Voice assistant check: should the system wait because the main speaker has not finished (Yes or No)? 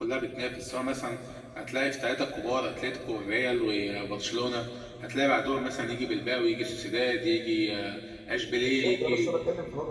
No